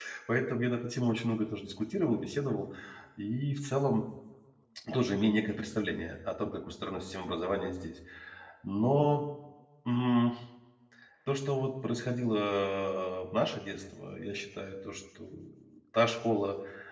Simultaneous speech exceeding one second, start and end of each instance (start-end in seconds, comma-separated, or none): none